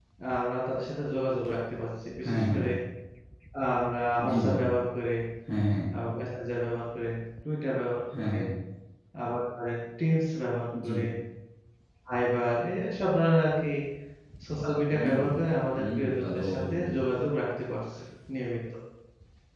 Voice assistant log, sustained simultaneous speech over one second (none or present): present